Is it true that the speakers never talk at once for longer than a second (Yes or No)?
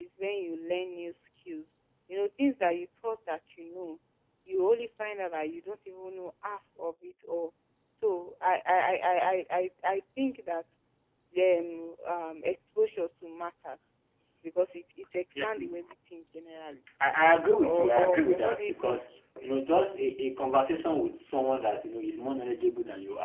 No